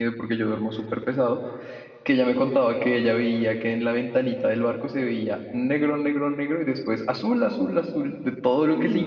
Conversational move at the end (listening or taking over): listening